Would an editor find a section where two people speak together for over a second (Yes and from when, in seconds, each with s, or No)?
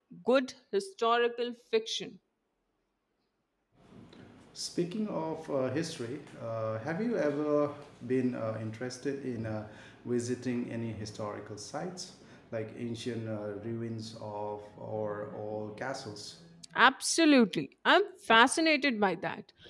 No